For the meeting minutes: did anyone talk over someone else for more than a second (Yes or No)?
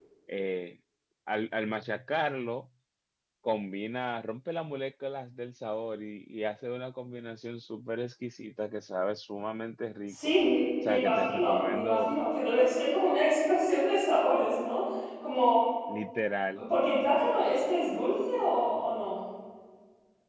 Yes